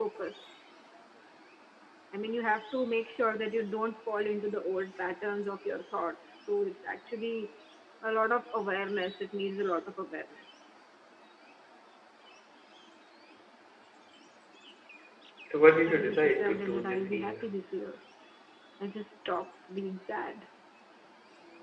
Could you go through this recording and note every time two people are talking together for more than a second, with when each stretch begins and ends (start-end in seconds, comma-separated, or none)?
15.9-17.5